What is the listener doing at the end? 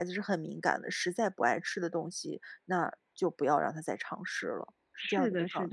taking over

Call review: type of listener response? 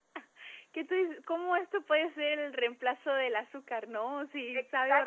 taking over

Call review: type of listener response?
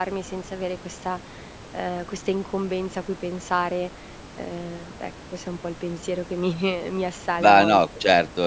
taking over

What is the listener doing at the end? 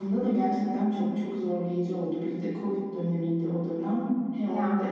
listening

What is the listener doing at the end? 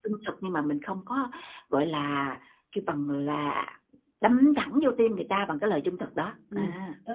taking over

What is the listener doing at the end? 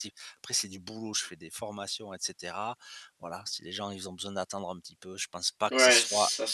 taking over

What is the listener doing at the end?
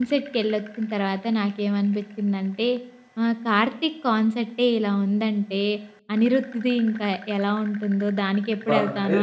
taking over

